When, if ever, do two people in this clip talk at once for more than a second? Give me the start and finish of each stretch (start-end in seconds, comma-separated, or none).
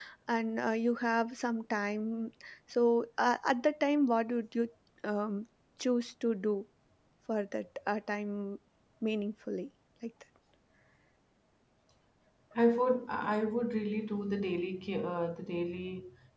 none